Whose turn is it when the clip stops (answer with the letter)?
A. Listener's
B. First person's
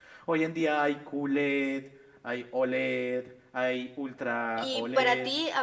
A